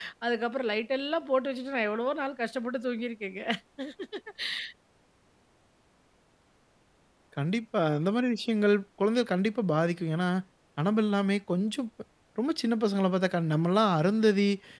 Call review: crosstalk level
none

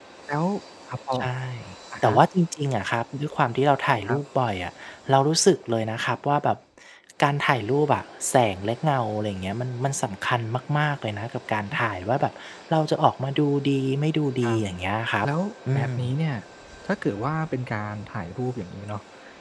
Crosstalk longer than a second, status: none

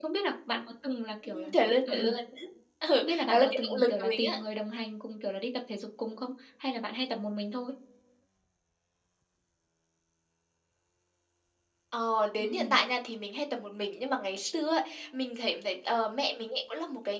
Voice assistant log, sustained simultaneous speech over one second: present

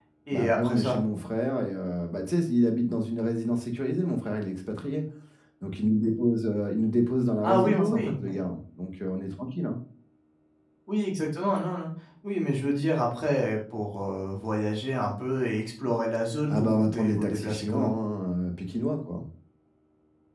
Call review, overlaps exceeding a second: present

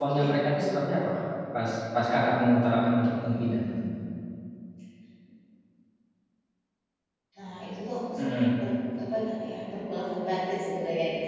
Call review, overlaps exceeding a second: none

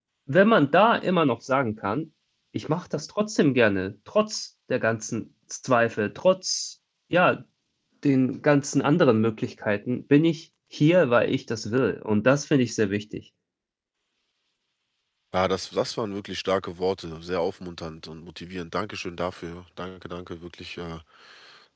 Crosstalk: none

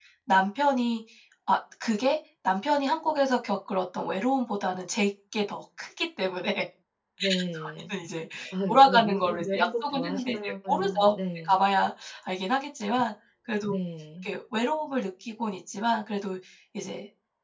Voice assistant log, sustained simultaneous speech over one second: present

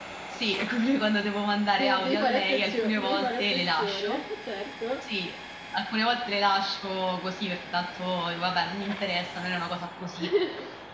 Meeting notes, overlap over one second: present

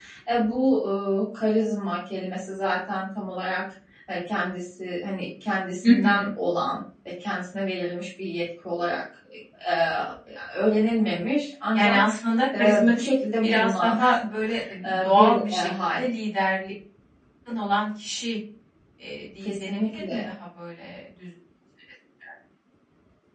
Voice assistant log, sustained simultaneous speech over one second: present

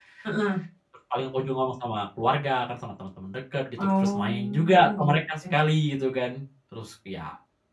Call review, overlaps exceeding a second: present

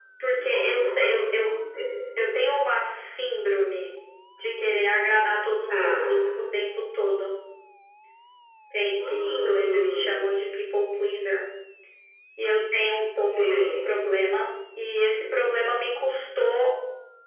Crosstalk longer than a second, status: present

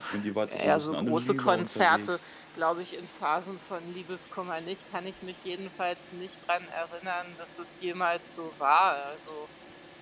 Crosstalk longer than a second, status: present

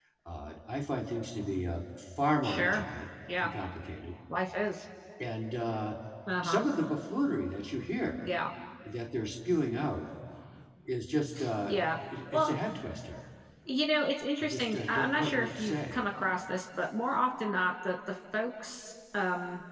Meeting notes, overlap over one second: present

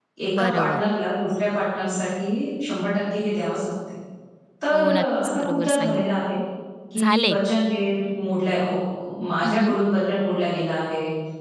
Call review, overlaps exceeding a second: present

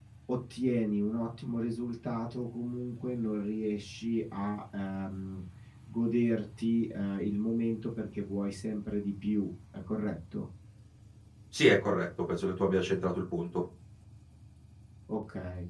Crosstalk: none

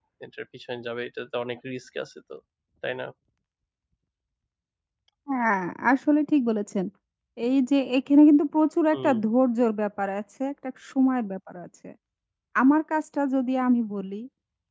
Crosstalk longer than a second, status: none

